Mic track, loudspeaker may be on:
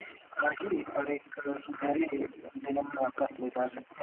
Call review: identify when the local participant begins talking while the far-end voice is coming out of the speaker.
none

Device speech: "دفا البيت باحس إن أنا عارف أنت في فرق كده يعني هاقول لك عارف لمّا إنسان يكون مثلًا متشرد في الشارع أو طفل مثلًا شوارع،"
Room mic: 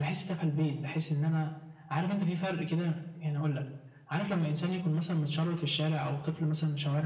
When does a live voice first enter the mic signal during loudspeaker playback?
none

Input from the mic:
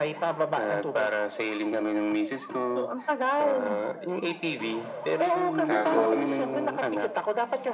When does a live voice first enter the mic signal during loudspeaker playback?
6 s

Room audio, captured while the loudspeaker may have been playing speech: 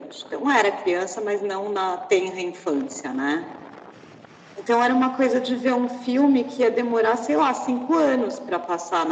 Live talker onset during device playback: none

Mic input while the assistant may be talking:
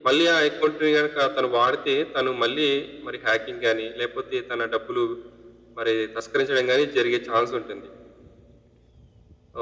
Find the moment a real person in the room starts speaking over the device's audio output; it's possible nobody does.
none

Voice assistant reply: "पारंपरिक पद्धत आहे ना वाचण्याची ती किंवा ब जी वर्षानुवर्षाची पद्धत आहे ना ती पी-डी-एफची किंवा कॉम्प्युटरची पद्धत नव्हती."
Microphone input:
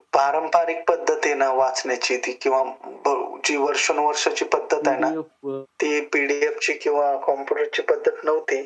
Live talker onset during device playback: 5 s

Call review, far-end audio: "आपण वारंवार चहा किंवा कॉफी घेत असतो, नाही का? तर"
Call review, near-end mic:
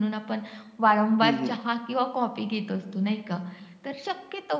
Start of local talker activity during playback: 1 s

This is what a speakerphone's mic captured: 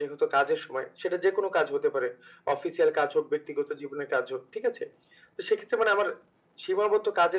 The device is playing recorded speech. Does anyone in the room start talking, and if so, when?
none

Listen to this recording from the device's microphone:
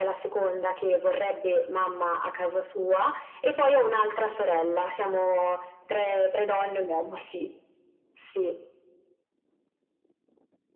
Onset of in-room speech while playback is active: none

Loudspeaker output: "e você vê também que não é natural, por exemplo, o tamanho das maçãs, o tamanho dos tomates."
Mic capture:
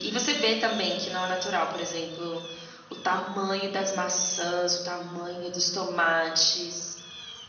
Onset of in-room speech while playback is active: none

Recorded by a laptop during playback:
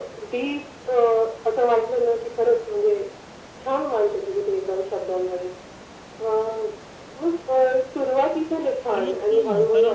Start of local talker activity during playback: 9 s

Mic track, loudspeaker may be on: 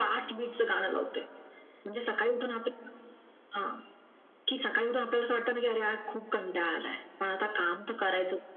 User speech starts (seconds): none

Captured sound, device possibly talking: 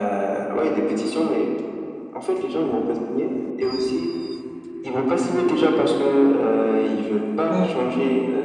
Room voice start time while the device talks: 7 s

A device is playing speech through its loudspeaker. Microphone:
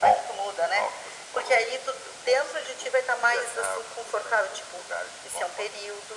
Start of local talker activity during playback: none

